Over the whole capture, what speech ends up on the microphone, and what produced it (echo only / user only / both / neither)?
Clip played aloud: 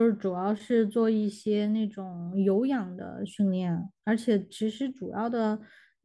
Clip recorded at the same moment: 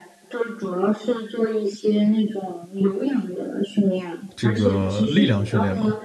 both